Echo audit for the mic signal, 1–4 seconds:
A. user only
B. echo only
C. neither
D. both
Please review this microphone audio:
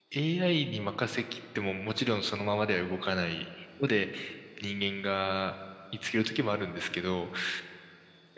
A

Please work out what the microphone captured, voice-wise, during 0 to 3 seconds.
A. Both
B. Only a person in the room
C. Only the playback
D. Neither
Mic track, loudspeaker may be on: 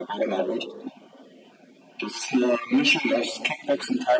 C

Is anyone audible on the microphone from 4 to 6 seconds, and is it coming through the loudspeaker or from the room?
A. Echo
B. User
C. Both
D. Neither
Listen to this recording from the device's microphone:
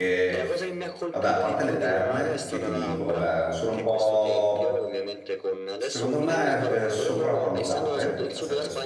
C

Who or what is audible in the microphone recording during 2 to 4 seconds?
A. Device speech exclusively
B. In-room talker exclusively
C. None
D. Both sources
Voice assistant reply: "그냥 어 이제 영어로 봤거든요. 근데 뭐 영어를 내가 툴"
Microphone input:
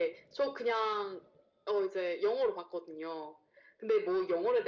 A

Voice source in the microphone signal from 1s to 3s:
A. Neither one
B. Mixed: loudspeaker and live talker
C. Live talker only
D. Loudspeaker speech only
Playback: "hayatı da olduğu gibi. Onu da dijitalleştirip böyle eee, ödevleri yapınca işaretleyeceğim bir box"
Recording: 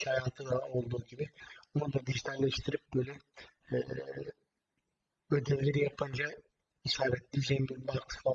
D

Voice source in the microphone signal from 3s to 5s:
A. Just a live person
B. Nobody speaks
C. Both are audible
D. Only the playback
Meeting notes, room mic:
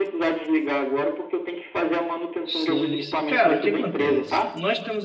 C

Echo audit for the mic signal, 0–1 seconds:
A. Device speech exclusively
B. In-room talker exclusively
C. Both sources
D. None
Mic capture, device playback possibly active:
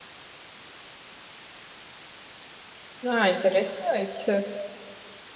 D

